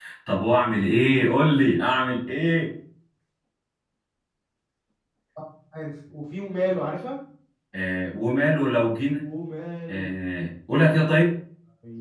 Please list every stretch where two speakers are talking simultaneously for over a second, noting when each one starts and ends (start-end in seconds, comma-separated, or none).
none